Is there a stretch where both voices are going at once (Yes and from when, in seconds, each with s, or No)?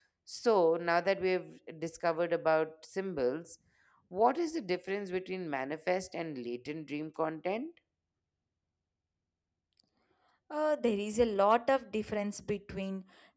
No